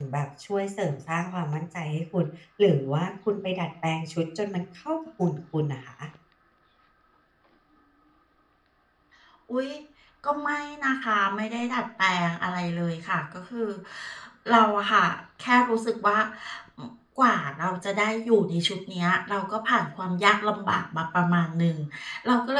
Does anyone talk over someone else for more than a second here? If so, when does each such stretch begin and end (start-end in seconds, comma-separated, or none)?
none